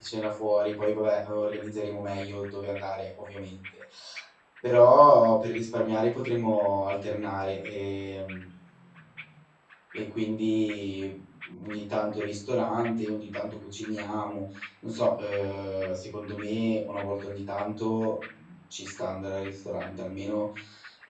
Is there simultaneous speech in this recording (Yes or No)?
No